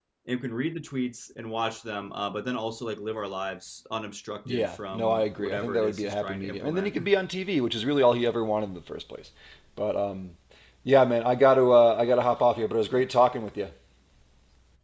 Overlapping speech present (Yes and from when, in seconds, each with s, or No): Yes, from 4.5 s